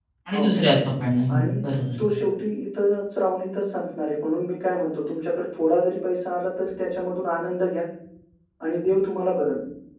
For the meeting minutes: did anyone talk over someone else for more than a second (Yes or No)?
No